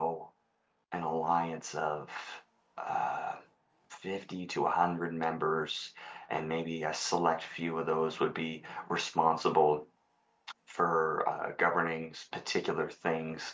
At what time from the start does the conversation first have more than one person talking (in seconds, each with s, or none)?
none